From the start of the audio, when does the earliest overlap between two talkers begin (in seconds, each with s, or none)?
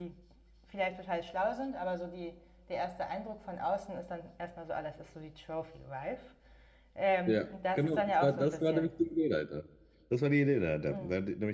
7.3 s